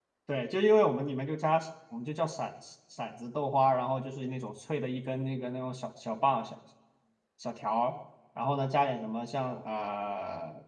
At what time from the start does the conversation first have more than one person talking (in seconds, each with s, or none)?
none